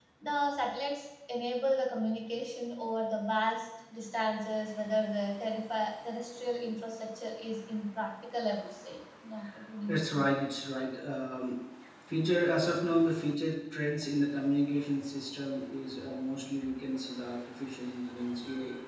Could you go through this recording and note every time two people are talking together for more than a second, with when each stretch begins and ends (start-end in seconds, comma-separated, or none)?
none